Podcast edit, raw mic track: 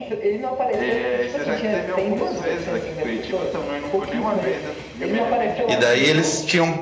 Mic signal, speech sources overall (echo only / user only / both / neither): both